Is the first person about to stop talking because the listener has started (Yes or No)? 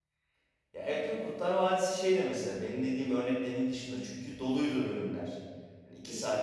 No